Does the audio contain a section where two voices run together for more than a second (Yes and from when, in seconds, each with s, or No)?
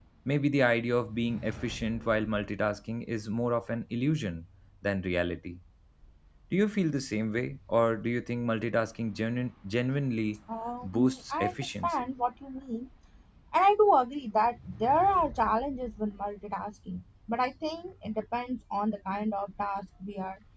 Yes, from 10.8 s